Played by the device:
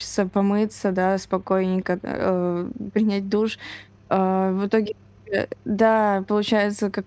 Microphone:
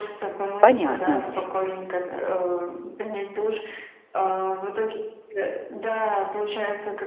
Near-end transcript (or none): Понятно.